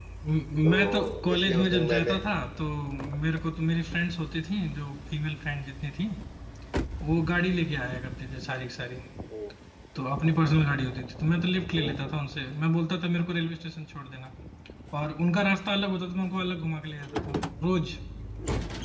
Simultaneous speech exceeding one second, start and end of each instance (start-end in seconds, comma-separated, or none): 0.6-2.2